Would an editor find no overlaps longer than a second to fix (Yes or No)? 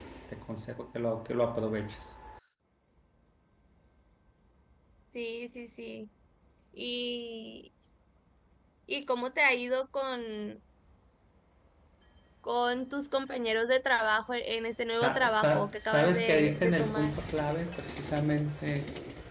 No